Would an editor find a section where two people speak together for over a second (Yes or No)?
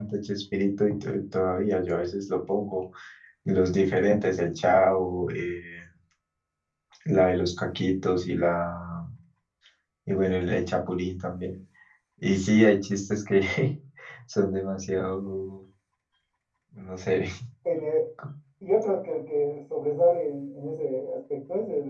No